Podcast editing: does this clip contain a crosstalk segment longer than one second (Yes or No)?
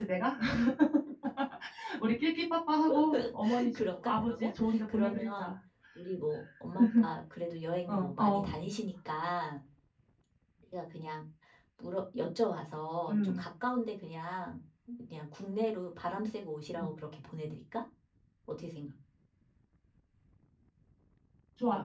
Yes